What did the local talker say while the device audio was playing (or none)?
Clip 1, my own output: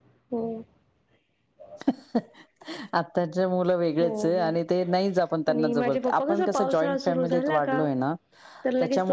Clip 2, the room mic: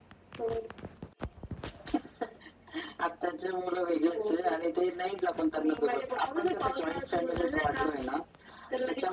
none